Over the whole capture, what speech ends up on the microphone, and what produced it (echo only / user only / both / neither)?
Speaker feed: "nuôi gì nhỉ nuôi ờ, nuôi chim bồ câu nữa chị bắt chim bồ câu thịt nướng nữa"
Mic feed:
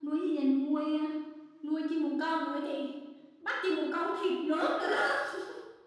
echo only